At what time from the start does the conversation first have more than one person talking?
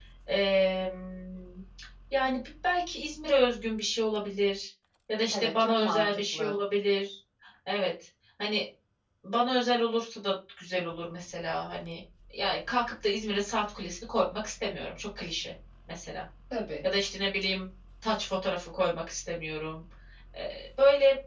5.3 s

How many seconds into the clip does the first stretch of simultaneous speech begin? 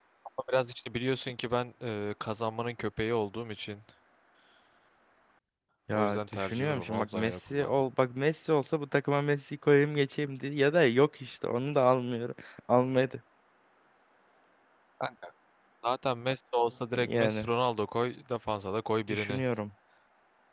5.9 s

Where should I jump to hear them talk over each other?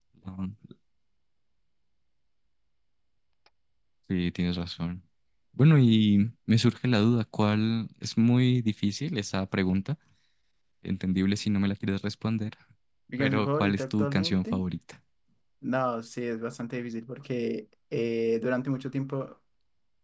13.2 s

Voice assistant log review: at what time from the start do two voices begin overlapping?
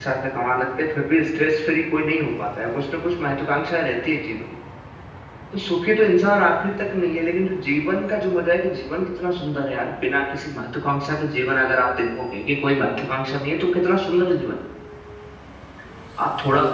none

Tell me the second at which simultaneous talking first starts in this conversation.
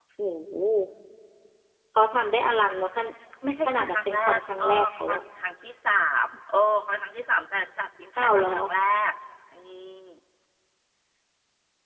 3.7 s

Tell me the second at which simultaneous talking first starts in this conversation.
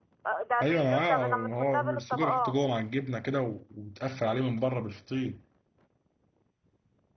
0.6 s

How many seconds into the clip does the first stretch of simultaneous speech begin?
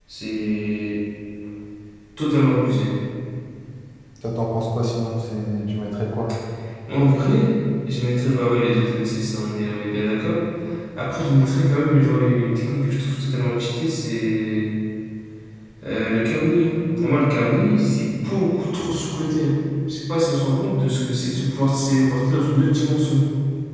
none

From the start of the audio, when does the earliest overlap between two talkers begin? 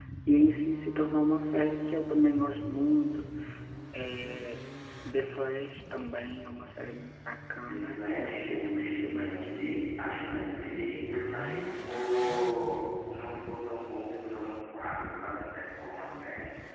7.7 s

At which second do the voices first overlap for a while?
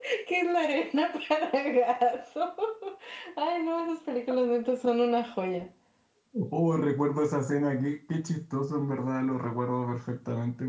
none

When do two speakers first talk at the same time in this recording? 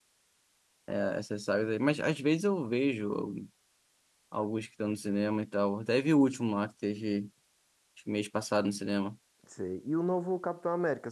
none

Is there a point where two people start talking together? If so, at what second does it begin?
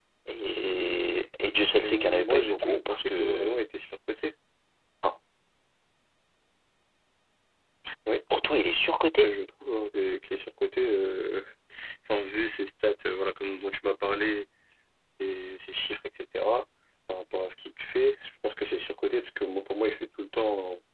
1.8 s

